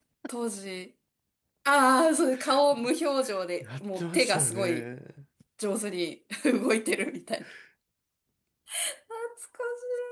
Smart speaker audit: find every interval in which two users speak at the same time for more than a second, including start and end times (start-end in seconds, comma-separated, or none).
3.6-4.8